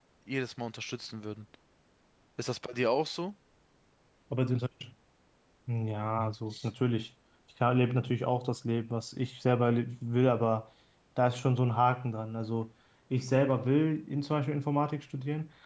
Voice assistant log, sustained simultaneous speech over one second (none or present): none